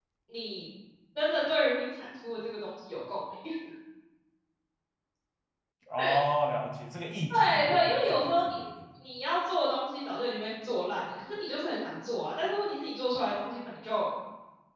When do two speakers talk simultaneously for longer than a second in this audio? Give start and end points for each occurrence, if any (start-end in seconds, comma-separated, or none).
7.3-8.6